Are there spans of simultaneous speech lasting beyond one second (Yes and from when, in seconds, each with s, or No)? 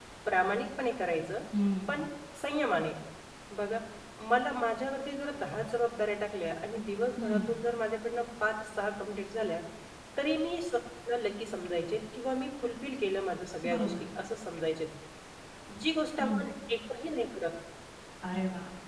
No